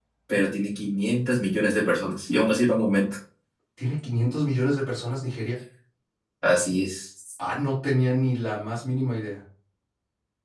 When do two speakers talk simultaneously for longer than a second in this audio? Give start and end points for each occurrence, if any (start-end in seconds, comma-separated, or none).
none